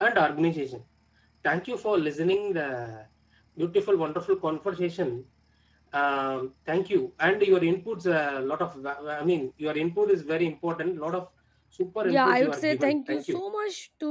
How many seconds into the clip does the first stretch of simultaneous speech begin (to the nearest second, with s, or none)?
12 s